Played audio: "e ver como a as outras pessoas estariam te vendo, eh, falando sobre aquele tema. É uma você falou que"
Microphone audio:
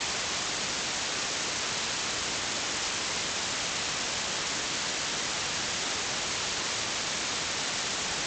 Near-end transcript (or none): none